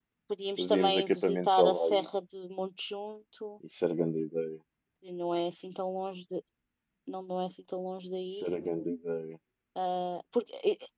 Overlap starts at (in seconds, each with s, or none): 0.6 s